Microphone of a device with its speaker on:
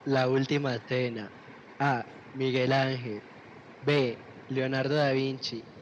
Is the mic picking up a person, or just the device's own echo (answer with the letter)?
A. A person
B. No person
B